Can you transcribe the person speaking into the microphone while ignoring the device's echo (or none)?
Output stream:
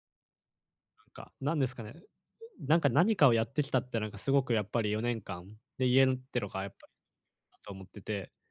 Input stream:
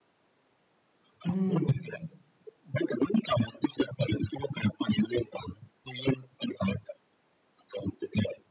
うーん。